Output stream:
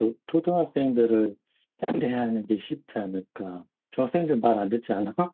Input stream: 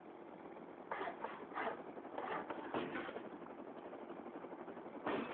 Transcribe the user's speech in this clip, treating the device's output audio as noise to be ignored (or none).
none